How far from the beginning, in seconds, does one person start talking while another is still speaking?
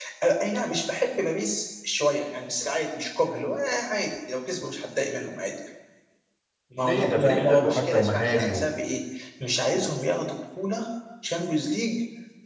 6.8 s

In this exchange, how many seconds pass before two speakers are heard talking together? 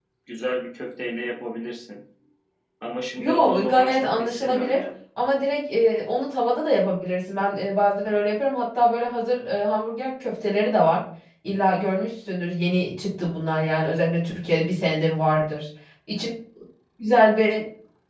3.2 s

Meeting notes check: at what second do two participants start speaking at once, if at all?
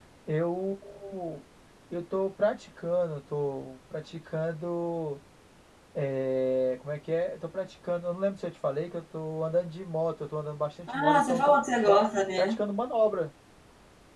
10.9 s

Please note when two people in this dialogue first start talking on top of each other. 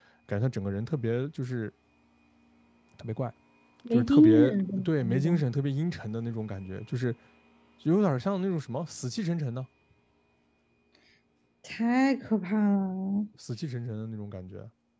3.9 s

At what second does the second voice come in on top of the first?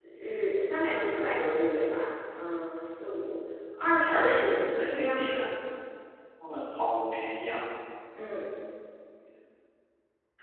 4.1 s

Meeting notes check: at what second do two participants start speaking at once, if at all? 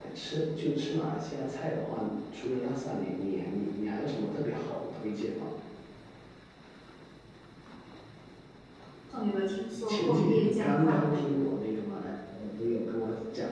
9.8 s

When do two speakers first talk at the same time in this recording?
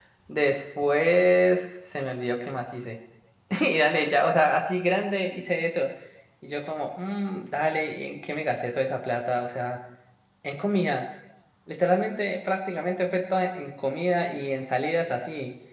none

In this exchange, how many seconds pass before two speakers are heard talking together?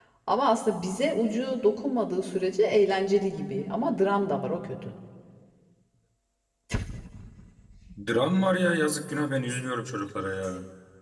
none

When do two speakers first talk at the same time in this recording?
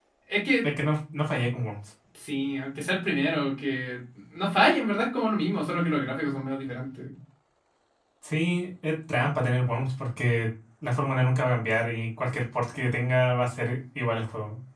none

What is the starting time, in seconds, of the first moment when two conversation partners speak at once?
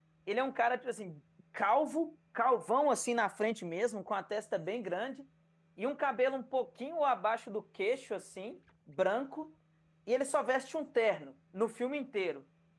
none

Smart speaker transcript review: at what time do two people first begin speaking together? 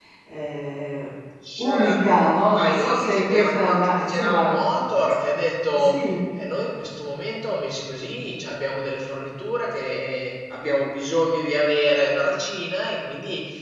1.6 s

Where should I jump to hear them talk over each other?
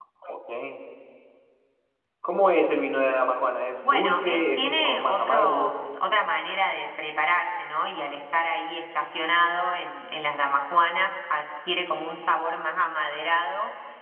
3.8 s

